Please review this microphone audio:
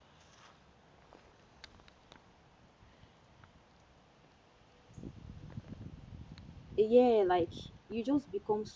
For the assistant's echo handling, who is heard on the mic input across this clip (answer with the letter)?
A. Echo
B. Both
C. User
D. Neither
C